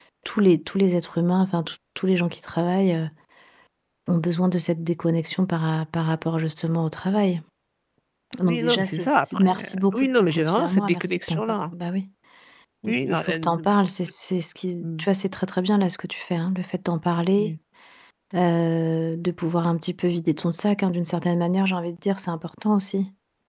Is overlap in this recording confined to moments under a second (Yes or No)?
No